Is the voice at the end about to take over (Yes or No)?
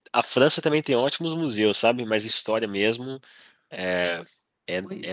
No